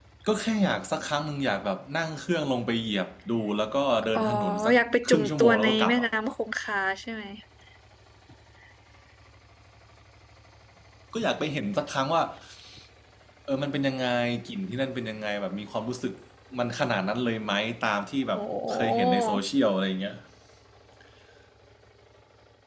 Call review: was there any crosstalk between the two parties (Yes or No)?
Yes